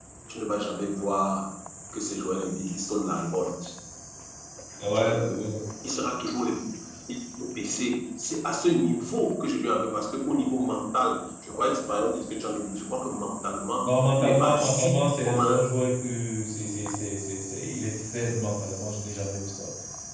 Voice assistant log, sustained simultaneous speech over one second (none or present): present